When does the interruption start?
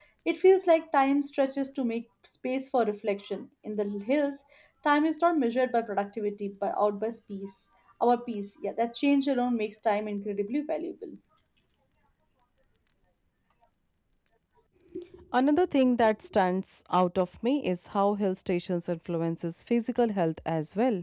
none

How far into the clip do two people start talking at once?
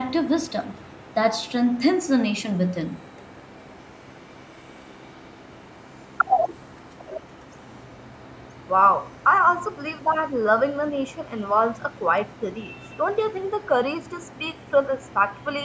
none

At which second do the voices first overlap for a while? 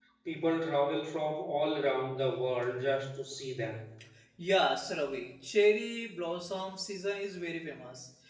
none

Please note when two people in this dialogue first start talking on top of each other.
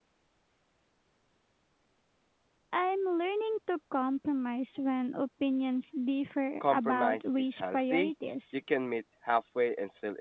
7 s

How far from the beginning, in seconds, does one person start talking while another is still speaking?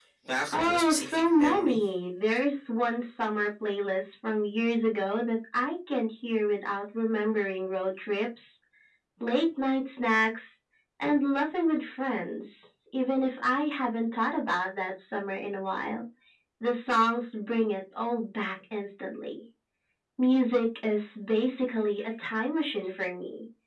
1 s

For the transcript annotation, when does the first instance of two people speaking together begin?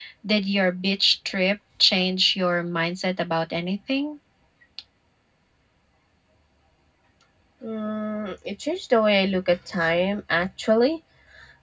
none

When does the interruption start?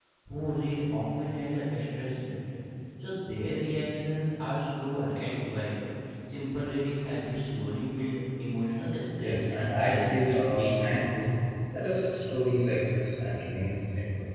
9 s

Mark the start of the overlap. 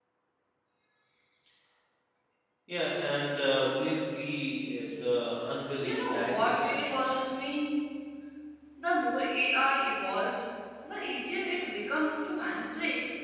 6 s

